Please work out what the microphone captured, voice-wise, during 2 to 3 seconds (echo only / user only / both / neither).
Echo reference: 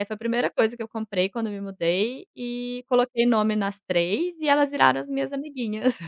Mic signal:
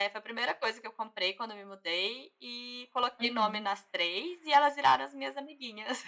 echo only